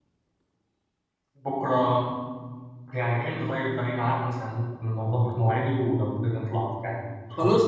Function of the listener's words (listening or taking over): taking over